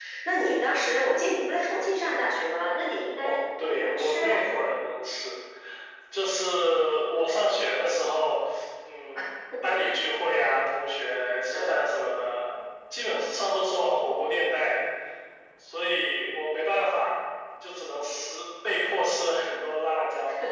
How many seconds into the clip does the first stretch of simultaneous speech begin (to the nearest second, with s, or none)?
3 s